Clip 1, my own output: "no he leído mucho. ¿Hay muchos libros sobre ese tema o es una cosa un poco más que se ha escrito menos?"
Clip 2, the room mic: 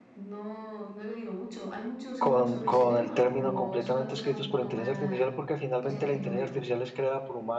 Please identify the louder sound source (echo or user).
user